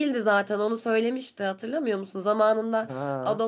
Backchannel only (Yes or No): Yes